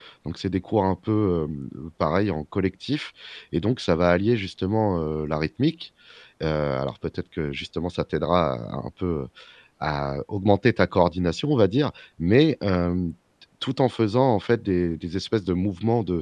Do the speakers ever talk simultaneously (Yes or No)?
No